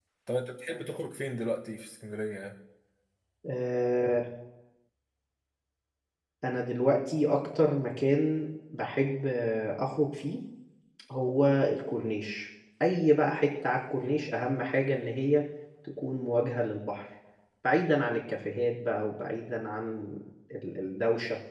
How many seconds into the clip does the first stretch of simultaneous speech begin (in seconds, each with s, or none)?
none